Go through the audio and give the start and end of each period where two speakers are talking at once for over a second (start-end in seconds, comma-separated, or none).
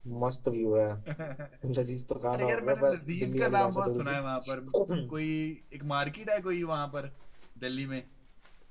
2.3-4.1